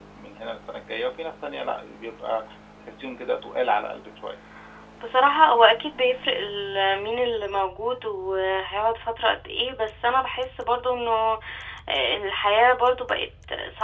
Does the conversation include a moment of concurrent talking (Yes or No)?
No